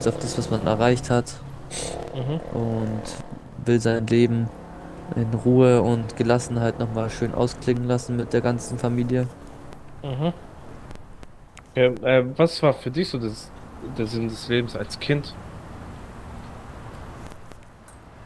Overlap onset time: none

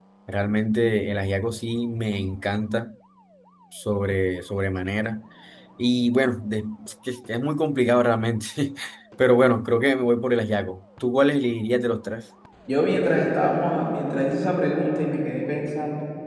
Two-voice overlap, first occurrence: none

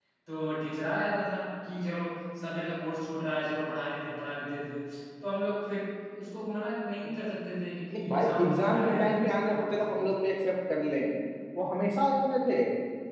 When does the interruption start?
8.0 s

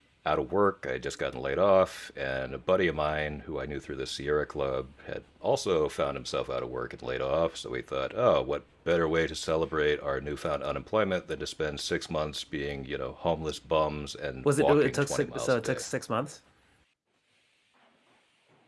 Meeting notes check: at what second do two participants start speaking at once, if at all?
14.4 s

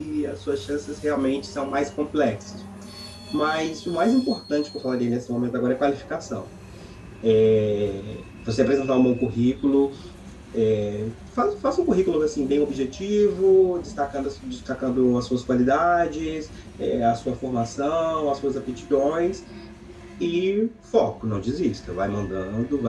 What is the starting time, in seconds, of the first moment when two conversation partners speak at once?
none

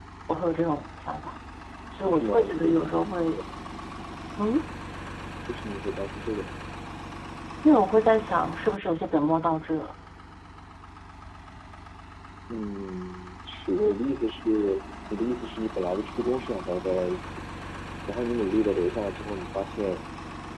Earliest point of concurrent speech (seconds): 2.0 s

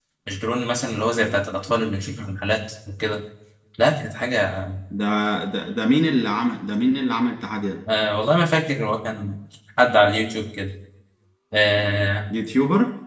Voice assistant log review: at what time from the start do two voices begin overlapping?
none

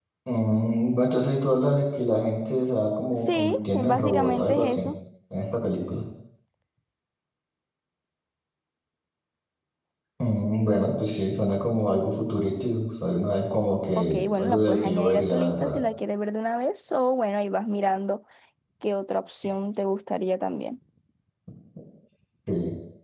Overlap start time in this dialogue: 3.3 s

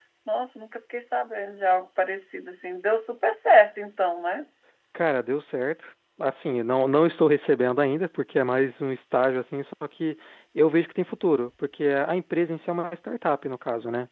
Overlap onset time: none

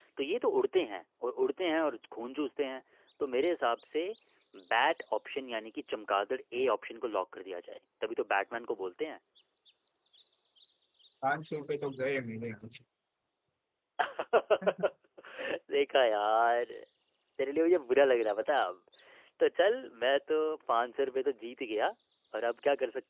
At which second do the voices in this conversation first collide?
none

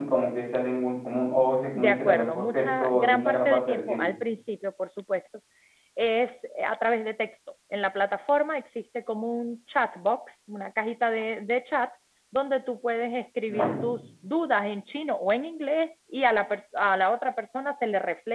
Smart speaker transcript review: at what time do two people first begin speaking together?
1.8 s

